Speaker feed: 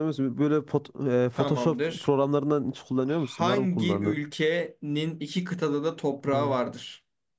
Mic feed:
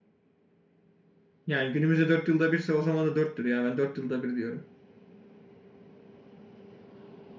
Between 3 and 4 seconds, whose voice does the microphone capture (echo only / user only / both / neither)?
user only